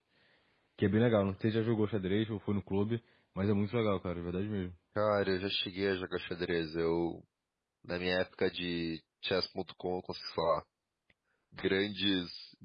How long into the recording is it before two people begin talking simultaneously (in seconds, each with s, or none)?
none